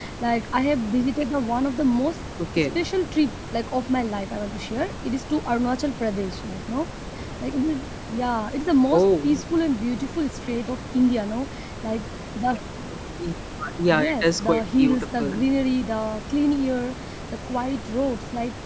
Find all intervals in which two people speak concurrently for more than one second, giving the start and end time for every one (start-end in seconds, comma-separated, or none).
13.9-15.5